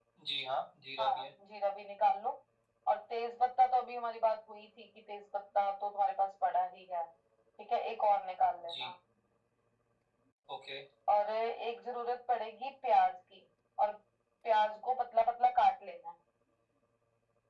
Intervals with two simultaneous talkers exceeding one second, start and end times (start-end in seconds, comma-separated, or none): none